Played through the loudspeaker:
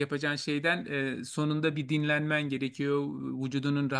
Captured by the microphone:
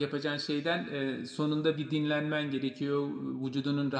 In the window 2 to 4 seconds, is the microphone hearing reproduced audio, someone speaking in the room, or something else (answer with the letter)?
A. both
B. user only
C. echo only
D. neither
C